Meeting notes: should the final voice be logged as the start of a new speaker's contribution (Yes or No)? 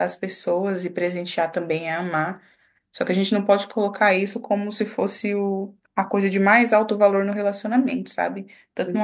No